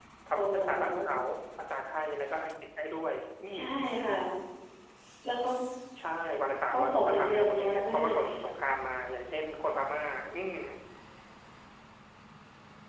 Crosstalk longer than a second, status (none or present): present